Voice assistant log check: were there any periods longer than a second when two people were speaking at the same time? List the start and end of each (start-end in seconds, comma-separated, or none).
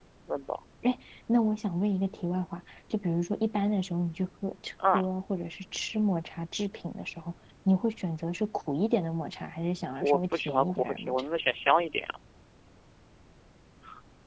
10.0-11.2